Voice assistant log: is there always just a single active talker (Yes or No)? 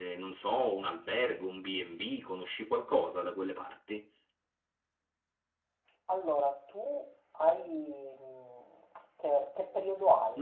Yes